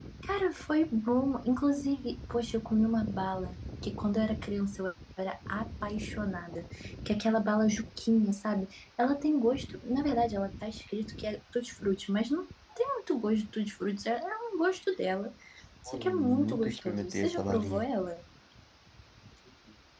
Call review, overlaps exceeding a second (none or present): present